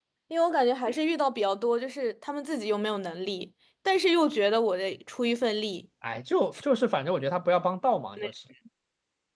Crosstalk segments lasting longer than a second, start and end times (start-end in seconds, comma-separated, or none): none